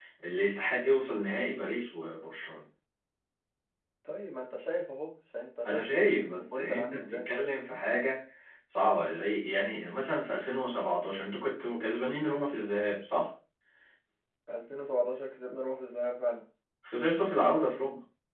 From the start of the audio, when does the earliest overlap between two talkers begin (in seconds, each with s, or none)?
5.6 s